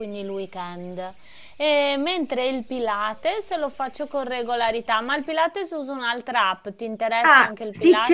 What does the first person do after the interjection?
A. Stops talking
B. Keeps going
A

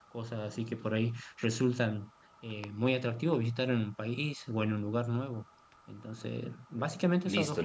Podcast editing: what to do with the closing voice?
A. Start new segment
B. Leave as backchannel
A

